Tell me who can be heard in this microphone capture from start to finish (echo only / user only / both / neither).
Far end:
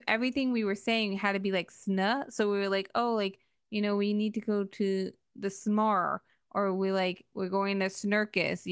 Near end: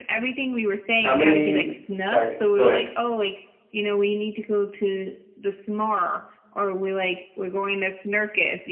both